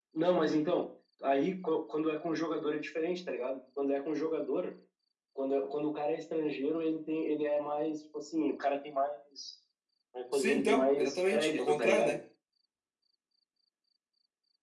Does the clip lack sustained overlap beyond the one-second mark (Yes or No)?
No